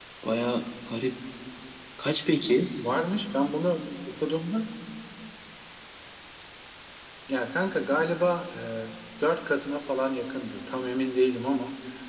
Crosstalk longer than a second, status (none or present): none